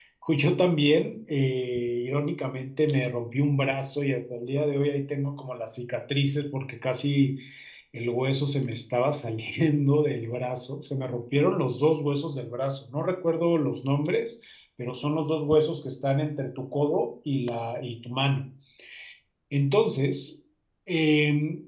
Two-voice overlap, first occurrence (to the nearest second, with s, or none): none